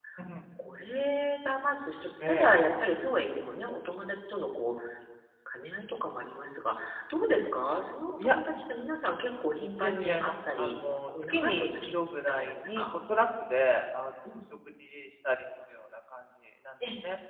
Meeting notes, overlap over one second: present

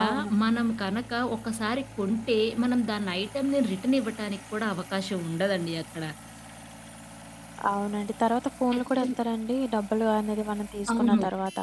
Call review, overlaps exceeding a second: none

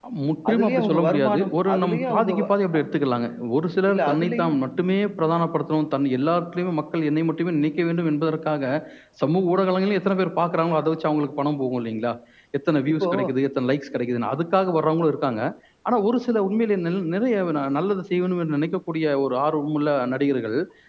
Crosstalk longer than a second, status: present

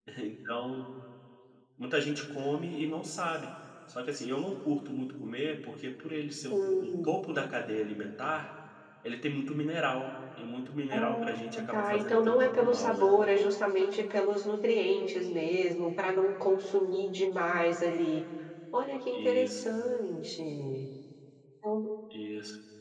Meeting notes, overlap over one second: present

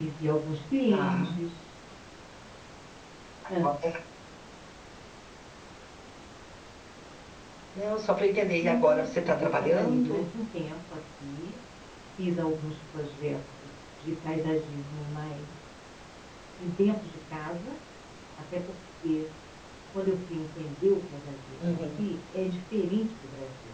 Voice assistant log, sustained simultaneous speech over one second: present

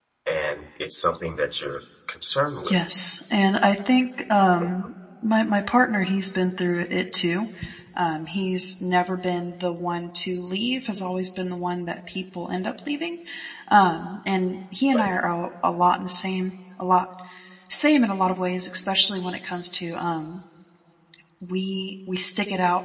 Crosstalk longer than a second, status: none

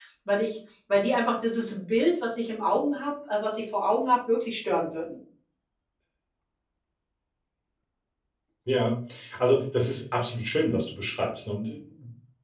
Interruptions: none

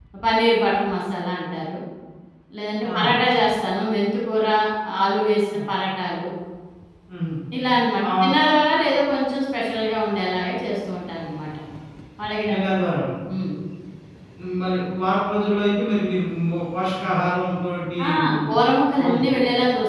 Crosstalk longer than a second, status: none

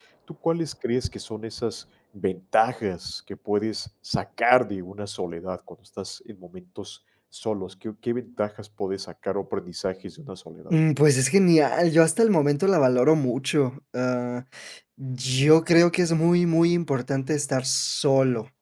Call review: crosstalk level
none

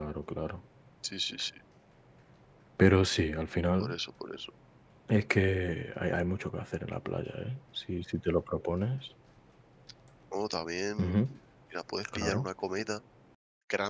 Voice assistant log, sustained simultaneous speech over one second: none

